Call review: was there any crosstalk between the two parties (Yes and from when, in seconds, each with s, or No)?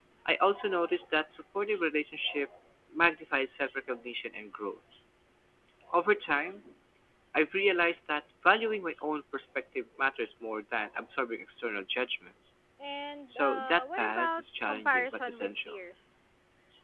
Yes, from 13.3 s